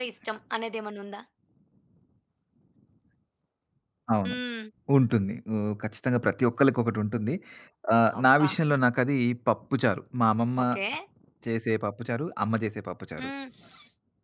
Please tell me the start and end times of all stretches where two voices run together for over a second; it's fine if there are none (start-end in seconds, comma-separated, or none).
none